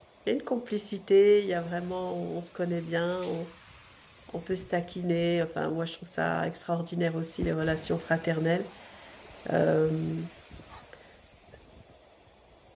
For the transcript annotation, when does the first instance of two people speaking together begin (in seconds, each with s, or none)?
none